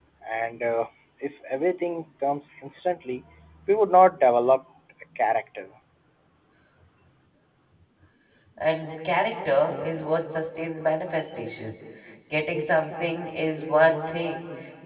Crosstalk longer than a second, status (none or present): none